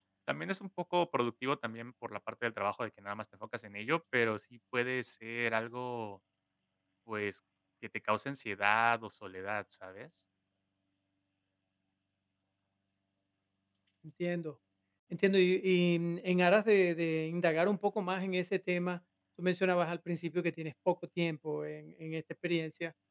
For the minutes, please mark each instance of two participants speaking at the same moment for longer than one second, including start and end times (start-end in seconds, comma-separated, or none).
none